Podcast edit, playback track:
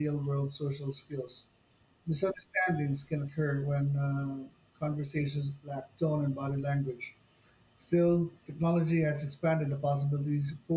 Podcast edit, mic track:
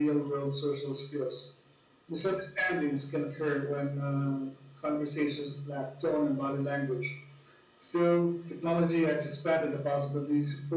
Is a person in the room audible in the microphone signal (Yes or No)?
No